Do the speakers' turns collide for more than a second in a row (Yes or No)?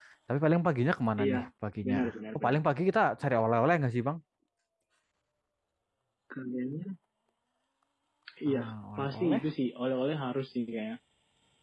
No